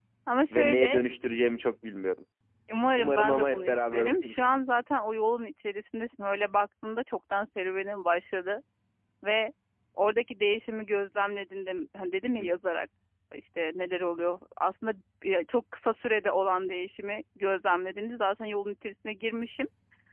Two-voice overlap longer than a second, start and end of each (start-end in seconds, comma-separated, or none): 3.0-4.4